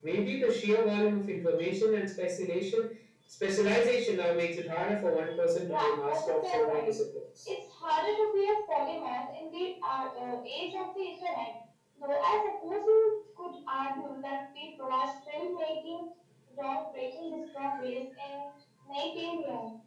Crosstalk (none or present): present